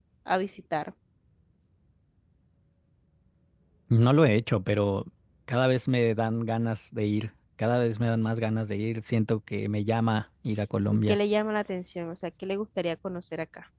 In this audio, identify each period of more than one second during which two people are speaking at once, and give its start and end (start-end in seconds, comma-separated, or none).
none